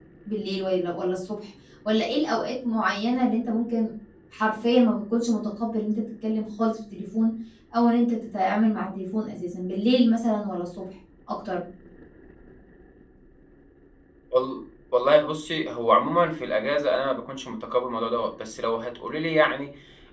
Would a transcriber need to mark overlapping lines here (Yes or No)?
No